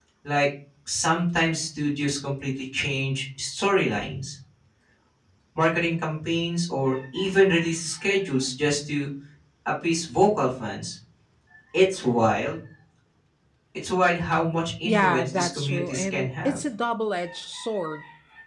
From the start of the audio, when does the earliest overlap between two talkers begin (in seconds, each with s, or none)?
14.8 s